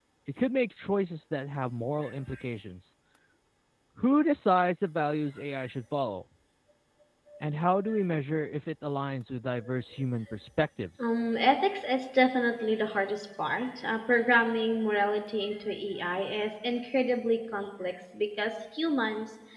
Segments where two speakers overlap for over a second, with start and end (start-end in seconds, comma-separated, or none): none